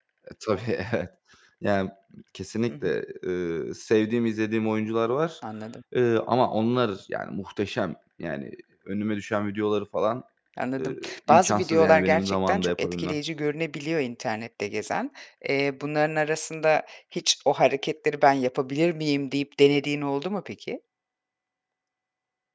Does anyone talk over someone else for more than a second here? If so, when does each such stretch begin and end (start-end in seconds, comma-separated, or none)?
10.8-13.2